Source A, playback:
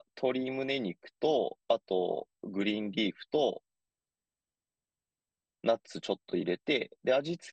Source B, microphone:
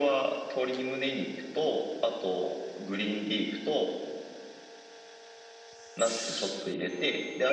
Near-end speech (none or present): none